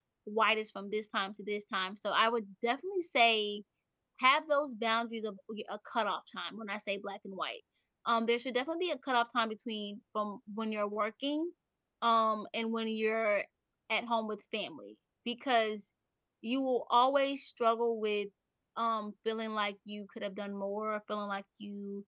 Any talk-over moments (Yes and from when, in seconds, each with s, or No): No